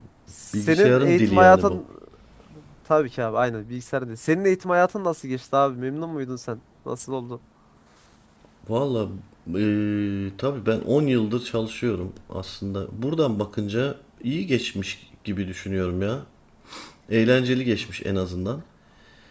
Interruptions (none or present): present